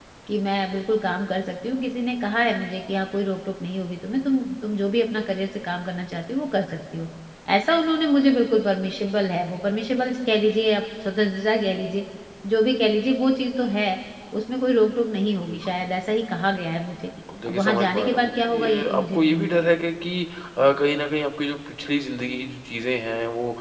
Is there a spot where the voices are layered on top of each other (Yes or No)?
Yes